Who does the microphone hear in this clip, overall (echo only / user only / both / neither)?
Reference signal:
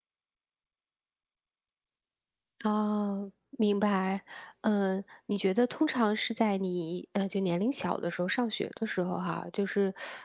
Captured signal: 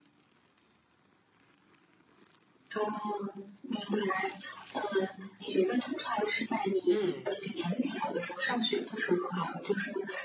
both